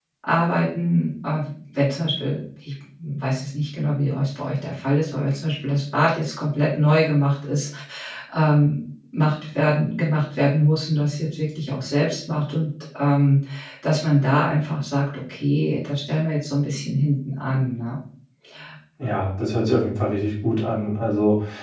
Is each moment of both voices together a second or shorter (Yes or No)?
Yes